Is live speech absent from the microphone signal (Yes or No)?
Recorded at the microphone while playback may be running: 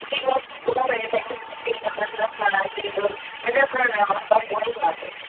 Yes